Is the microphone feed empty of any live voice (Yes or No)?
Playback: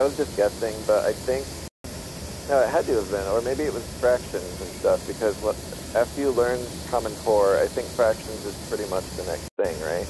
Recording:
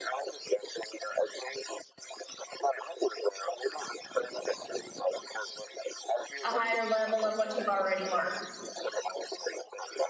No